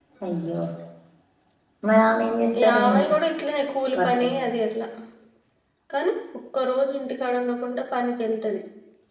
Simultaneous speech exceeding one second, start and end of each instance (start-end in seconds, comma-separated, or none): none